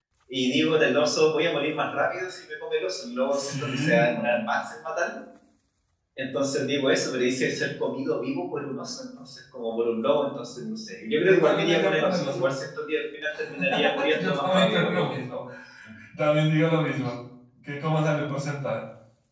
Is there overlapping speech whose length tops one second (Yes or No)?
Yes